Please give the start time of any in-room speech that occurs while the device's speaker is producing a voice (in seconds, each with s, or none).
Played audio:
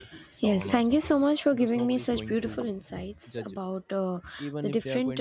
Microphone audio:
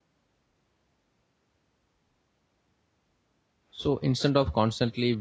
3.8 s